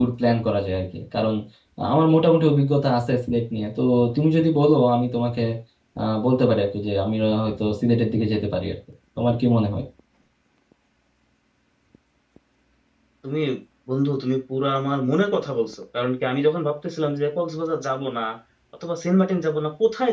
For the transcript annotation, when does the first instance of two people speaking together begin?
none

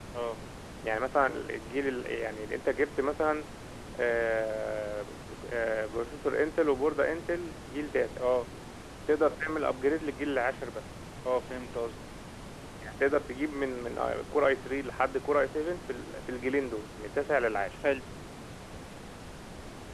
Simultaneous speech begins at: none

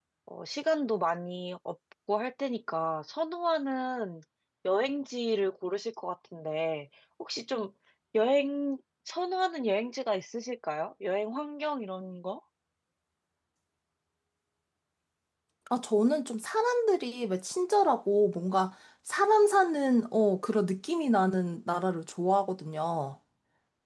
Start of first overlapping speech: none

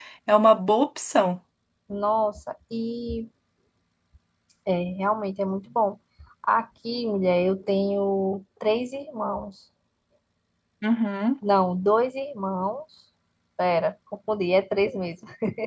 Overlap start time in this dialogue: none

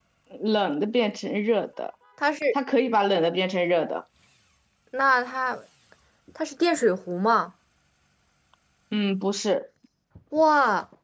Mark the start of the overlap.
none

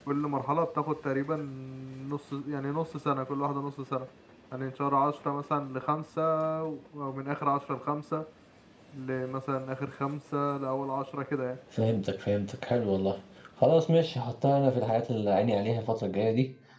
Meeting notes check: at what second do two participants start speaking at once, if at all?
none

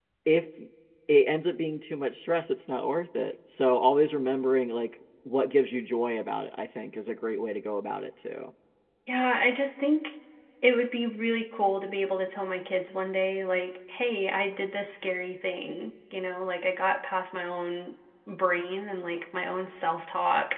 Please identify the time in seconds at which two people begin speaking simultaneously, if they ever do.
none

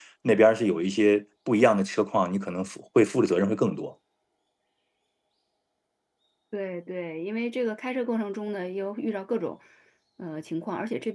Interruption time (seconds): none

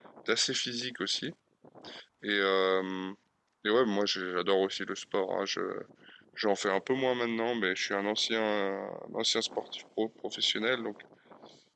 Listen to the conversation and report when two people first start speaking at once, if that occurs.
none

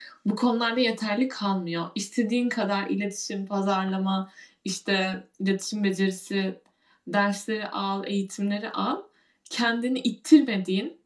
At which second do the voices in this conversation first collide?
none

